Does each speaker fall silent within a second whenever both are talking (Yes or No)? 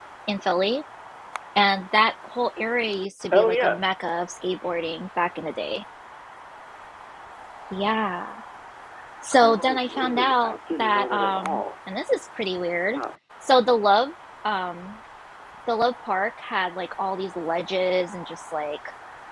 No